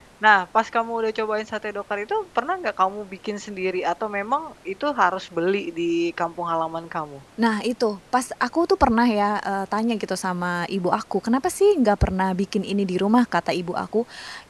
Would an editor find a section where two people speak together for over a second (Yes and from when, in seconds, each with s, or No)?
No